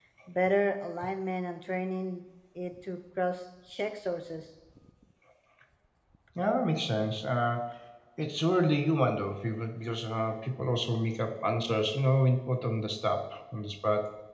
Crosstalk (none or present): none